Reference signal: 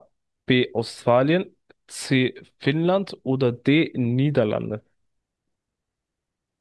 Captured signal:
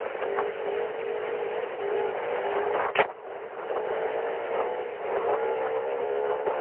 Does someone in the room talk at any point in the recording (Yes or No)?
No